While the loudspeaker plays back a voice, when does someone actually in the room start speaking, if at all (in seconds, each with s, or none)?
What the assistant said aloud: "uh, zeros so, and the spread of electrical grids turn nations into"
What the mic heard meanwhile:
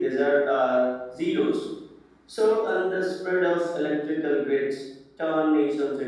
none